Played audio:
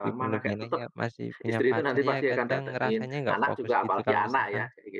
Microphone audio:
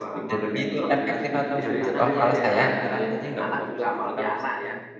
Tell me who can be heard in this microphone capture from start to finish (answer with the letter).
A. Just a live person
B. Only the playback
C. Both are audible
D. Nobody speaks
C